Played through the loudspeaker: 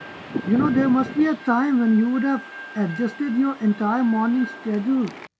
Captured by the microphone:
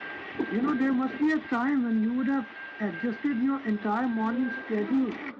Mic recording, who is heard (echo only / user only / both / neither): both